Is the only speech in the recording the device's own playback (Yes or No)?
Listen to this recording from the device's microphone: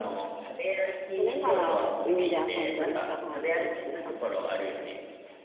No